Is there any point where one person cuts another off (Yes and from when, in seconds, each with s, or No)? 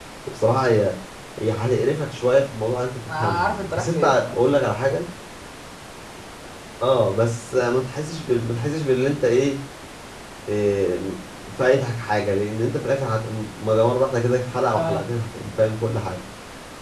Yes, from 3.1 s